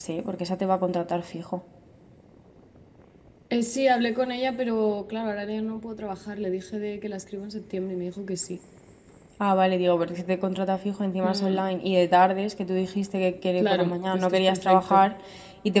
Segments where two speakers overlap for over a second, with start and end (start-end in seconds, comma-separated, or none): 13.6-15.1